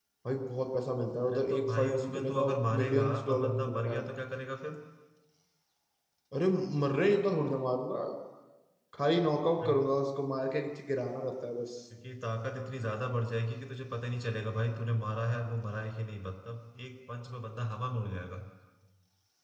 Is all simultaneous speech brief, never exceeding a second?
No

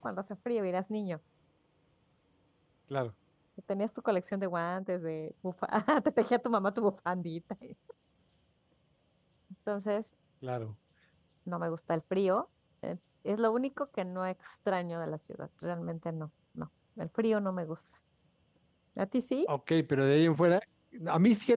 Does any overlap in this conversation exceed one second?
No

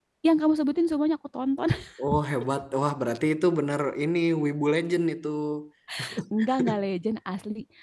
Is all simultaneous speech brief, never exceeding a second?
Yes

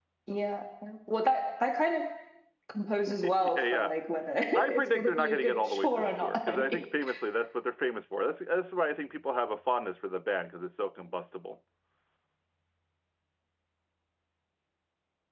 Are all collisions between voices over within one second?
No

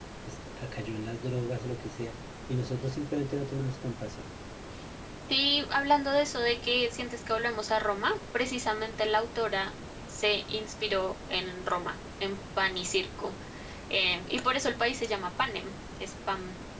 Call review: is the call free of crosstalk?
Yes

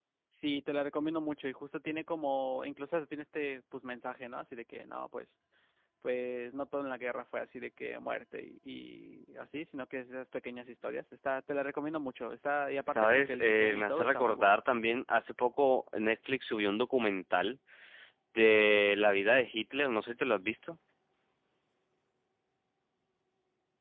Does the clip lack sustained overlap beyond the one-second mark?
No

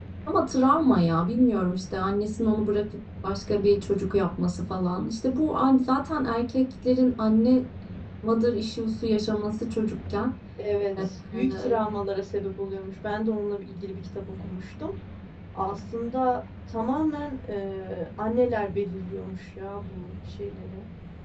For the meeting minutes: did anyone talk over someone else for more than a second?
No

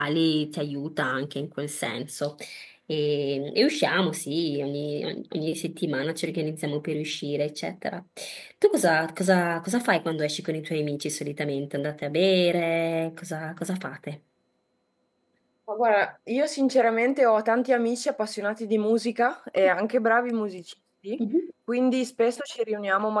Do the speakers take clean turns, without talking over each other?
Yes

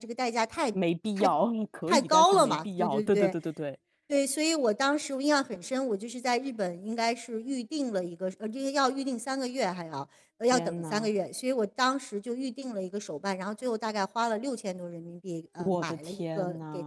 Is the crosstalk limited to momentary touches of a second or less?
No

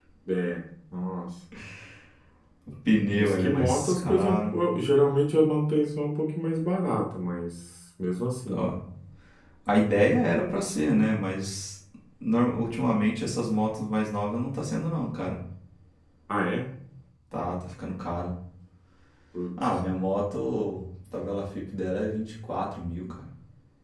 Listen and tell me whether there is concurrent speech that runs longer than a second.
Yes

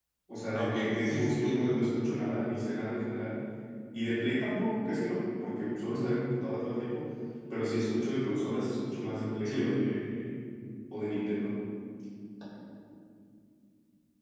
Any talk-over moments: Yes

